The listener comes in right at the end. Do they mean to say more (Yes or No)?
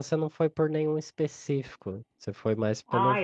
Yes